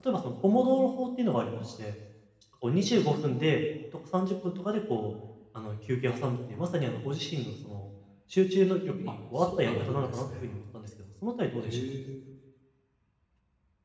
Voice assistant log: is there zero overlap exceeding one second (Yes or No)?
No